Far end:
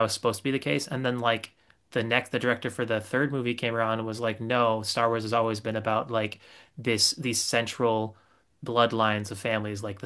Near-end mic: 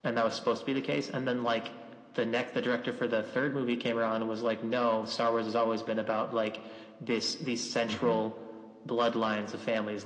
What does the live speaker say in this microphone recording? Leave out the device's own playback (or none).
mhm.